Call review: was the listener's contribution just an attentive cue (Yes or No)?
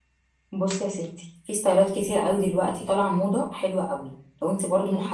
Yes